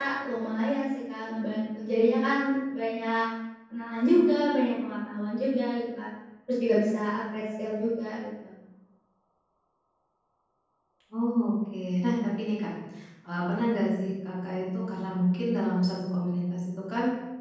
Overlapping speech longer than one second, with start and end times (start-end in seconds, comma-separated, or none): none